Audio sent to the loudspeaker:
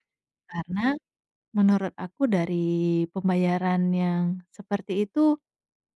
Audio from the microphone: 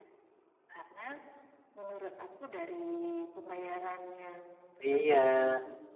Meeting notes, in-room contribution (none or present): present